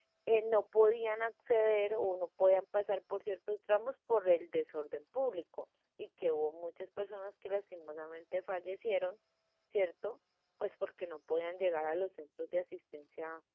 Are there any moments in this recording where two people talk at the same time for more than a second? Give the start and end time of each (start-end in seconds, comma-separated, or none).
none